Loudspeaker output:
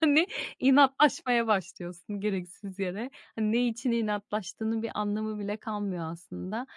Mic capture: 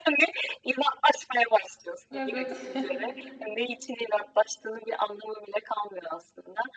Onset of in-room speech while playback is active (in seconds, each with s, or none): 2.1 s